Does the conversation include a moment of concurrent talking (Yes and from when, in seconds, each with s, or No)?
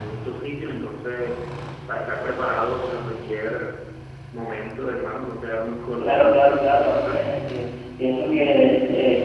Yes, from 6.0 s